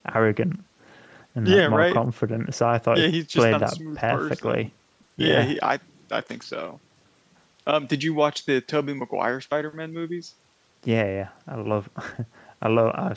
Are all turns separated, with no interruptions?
No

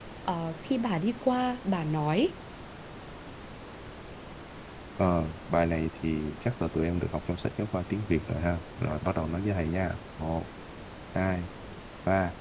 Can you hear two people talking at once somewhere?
No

